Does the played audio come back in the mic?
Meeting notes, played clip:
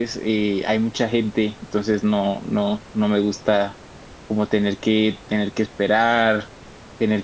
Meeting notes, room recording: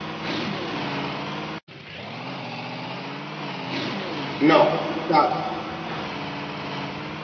No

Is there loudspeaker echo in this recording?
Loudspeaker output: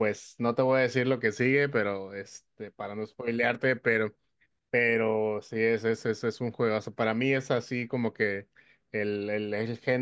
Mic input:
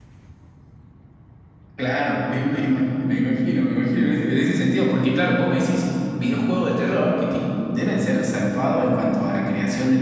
No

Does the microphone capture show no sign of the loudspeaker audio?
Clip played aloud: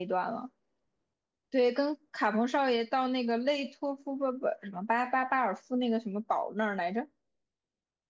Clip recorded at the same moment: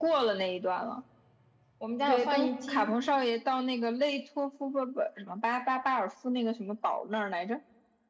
No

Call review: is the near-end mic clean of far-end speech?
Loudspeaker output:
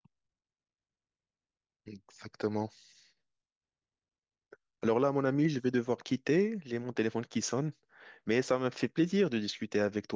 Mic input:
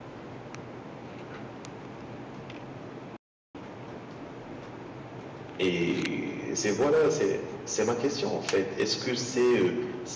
Yes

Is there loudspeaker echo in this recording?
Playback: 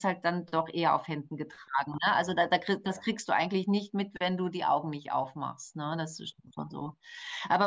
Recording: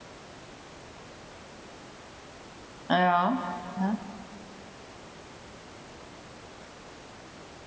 No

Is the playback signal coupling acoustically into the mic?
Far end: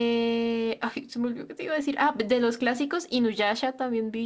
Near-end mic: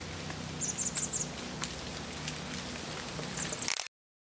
No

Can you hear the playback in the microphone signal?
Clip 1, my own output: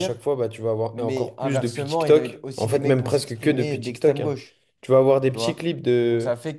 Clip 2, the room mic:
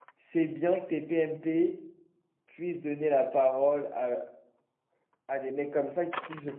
No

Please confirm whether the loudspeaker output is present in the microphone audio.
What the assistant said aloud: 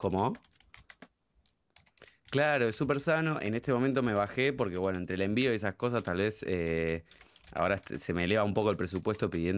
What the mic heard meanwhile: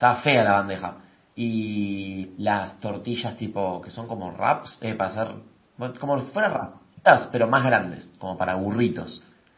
No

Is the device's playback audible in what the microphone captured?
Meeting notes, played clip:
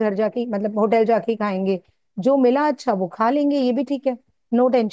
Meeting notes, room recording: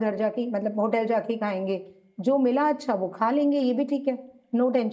Yes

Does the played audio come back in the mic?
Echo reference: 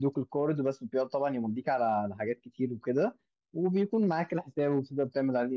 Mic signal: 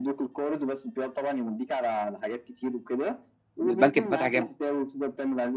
Yes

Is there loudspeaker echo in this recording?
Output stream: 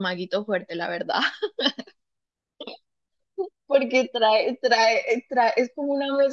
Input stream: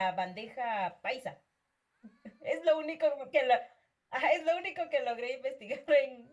No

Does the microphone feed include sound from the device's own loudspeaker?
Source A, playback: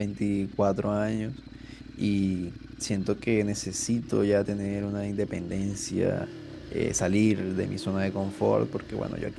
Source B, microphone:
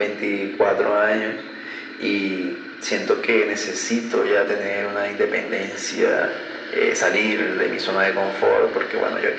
Yes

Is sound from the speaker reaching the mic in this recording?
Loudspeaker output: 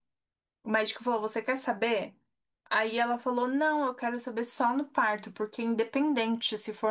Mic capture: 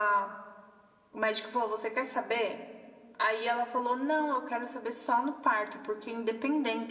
Yes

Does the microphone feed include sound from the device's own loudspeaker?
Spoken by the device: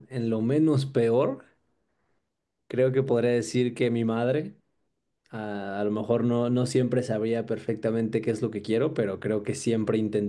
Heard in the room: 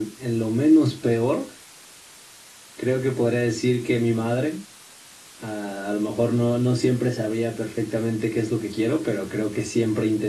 Yes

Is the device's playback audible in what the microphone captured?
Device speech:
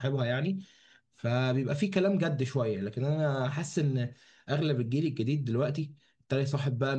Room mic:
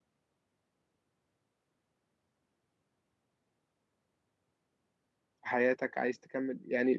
No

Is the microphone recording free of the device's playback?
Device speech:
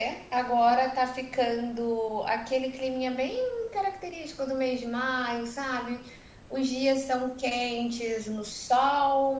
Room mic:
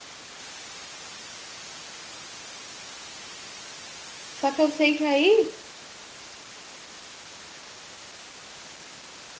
Yes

